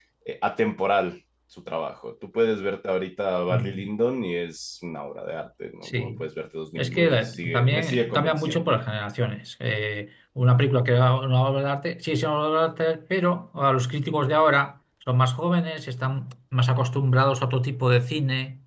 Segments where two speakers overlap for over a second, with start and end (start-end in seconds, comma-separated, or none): 6.8-8.8